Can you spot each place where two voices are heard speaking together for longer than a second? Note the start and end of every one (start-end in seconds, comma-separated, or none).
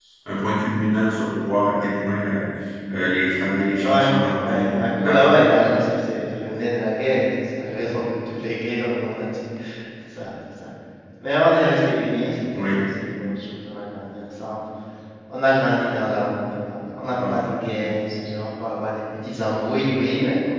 3.8-5.3